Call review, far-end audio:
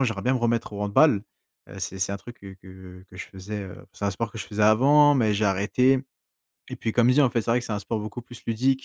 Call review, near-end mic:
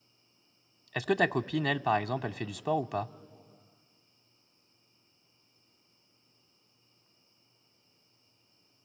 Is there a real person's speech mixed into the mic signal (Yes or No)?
Yes